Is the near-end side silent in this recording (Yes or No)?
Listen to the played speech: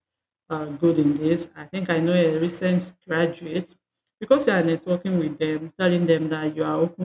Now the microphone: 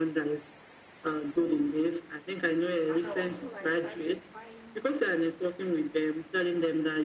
No